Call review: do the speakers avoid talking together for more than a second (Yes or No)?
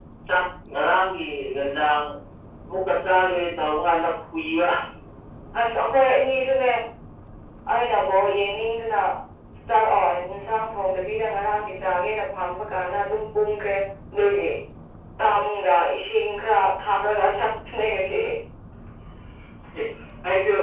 Yes